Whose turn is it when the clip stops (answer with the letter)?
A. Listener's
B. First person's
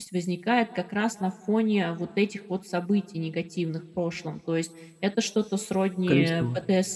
B